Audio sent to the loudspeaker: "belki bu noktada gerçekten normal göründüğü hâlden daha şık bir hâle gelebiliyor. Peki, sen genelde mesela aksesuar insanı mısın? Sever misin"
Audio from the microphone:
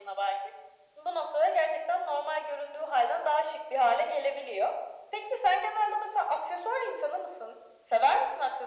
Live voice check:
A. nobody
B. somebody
A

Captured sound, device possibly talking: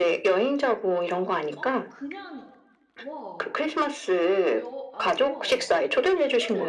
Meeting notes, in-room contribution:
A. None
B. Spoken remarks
B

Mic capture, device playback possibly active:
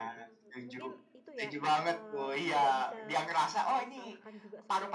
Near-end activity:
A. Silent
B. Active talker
B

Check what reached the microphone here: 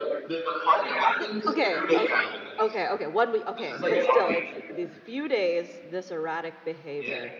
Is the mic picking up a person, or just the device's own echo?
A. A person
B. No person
A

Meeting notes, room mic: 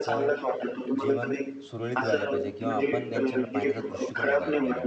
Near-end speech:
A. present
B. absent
A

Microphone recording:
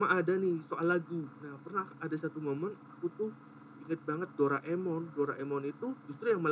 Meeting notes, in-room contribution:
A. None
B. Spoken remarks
A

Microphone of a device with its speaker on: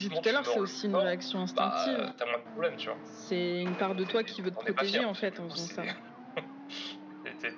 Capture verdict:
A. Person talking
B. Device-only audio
A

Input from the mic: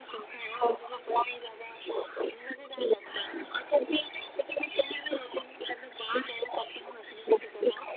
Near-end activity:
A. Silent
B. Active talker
A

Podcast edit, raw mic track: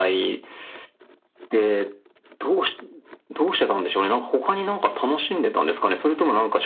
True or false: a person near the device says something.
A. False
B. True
A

